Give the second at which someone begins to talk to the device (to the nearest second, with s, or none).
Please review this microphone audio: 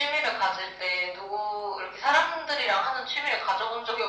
none